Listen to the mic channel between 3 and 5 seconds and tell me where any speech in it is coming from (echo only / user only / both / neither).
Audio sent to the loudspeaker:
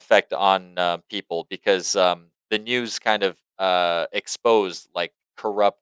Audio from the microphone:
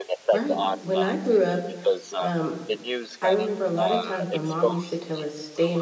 both